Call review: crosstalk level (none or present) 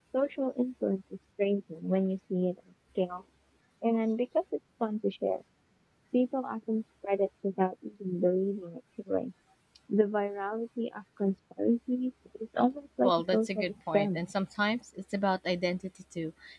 present